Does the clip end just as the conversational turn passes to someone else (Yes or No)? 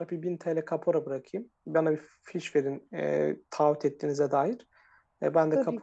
No